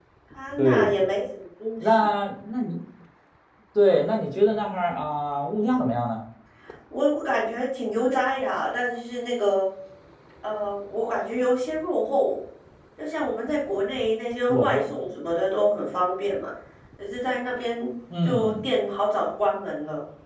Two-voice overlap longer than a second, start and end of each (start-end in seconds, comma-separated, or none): none